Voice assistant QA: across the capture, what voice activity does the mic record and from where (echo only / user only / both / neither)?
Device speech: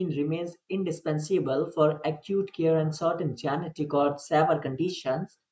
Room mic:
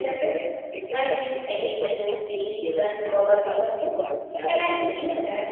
both